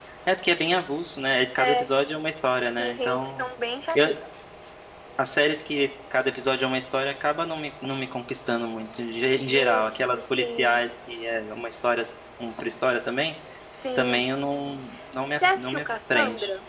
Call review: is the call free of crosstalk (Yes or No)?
No